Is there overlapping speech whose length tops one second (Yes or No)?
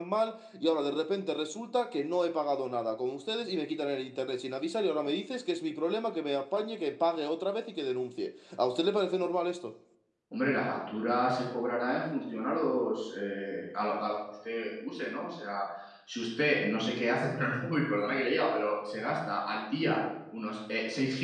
No